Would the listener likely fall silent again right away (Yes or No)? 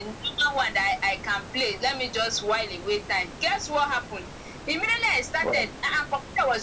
Yes